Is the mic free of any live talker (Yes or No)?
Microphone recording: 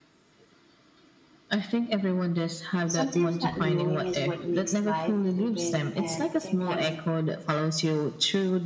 No